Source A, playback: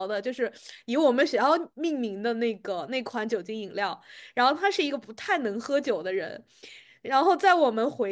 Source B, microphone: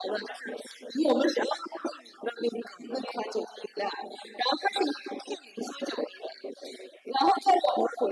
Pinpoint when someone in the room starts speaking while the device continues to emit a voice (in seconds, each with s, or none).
none